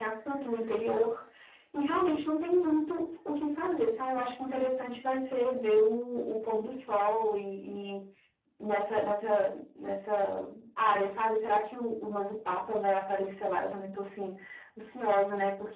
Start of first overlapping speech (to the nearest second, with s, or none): none